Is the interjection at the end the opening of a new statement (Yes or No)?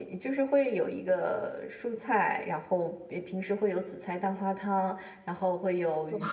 No